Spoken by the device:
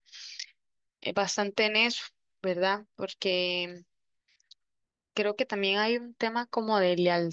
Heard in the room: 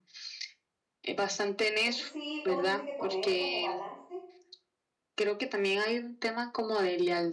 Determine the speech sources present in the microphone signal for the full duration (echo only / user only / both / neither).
both